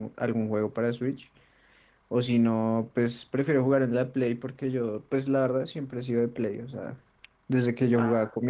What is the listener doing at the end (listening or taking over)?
listening